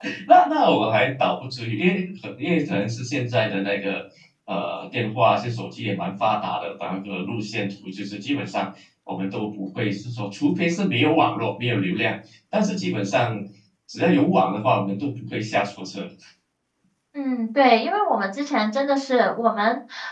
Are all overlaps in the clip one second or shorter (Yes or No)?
Yes